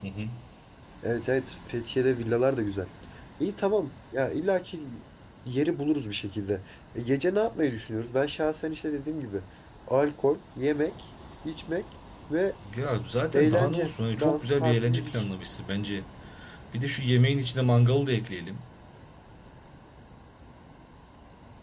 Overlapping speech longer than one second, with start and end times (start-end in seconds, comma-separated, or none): 13.3-15.2